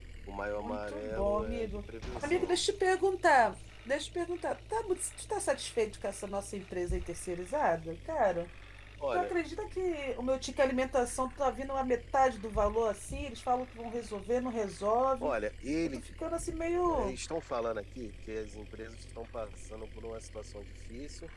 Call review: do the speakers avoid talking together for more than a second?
No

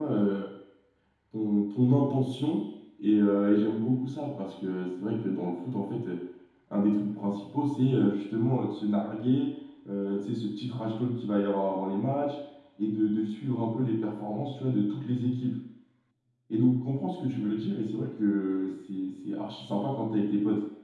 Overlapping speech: No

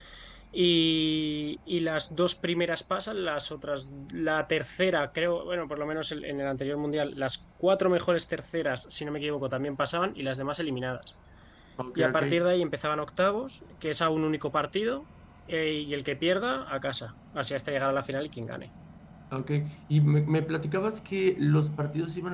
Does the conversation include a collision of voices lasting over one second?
No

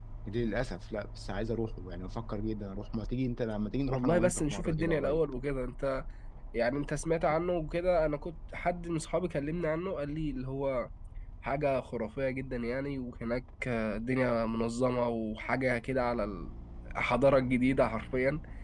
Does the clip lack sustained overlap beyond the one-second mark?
No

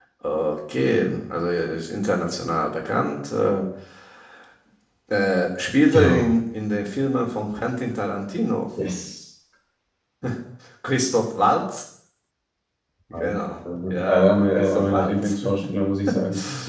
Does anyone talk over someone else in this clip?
Yes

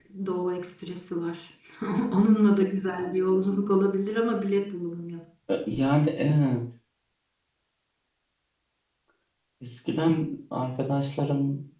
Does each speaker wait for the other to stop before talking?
Yes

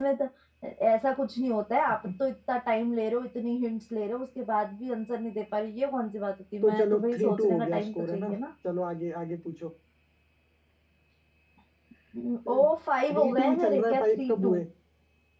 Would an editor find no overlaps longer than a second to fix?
No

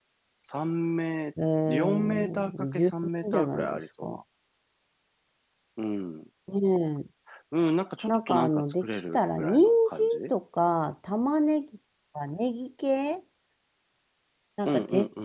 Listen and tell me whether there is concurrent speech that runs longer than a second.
Yes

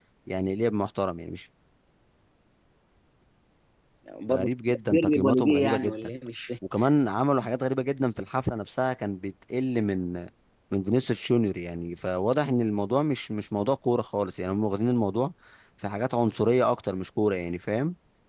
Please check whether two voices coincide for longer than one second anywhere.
Yes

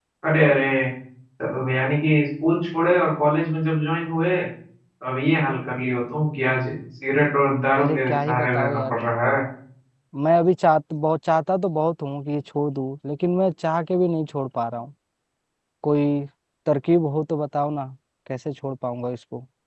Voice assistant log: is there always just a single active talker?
No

